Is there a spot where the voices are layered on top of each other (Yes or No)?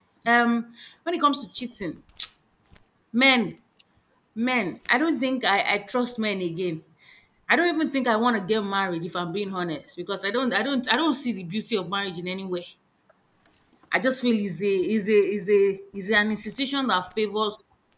No